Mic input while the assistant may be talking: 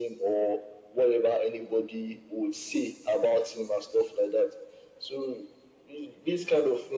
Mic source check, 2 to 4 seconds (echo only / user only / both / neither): echo only